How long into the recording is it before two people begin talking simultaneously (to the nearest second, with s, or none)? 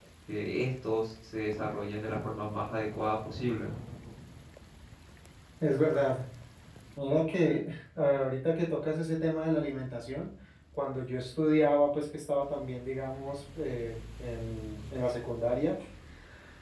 none